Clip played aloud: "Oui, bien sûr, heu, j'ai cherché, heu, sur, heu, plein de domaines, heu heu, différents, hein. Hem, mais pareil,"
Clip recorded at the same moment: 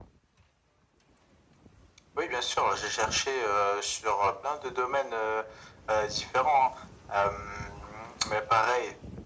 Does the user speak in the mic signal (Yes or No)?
No